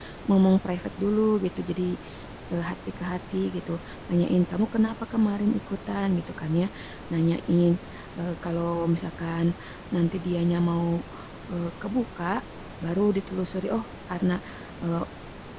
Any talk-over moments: No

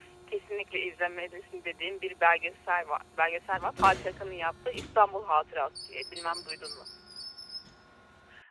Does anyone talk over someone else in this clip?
No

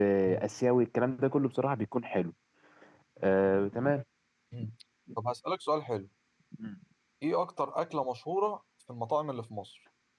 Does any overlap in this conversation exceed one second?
No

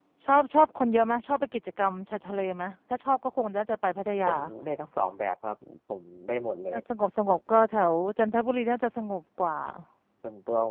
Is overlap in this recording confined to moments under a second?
Yes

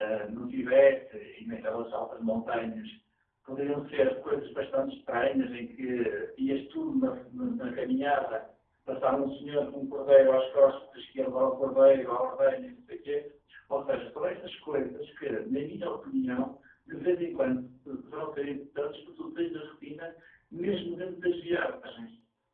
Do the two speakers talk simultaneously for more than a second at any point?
No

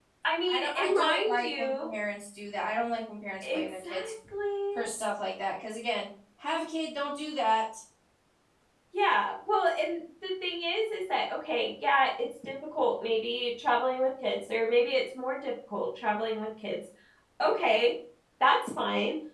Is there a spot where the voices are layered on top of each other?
Yes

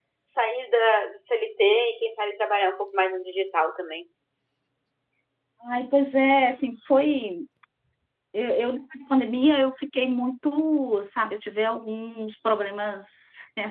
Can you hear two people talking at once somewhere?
No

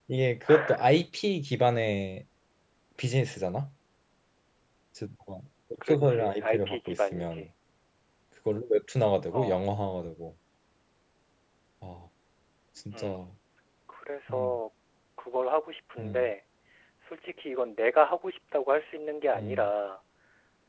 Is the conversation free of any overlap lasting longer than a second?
No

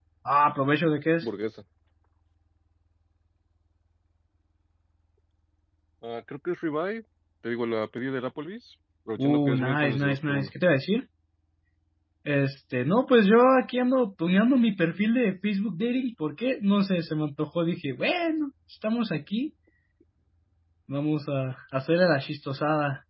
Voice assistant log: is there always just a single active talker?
No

